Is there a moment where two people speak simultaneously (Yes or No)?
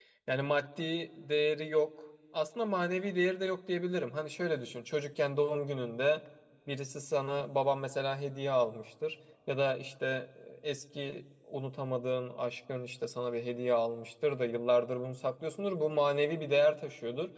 No